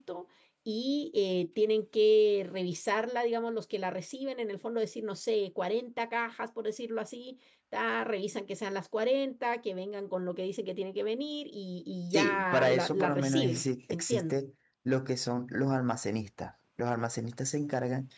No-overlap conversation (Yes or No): No